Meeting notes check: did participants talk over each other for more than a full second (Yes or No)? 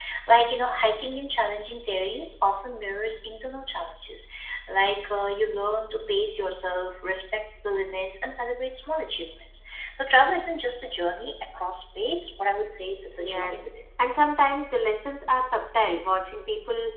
No